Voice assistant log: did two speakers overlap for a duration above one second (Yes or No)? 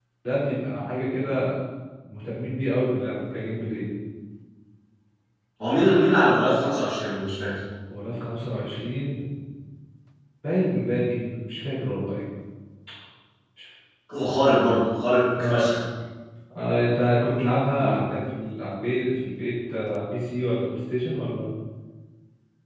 No